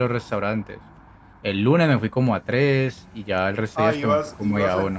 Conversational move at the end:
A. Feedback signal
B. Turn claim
B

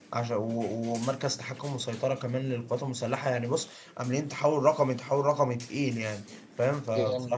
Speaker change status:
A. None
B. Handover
A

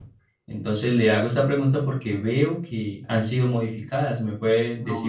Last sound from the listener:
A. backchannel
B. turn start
B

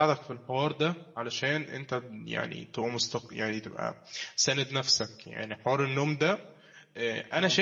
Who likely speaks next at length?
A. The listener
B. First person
B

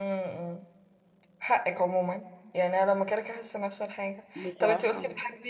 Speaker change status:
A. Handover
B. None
B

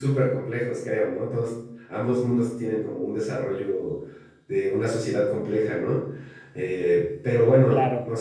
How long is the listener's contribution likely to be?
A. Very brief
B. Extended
A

